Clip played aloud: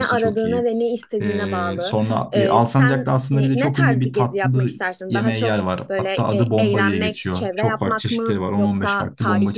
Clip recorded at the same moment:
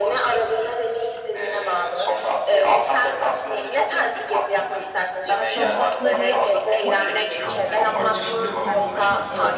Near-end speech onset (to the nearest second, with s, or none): 5 s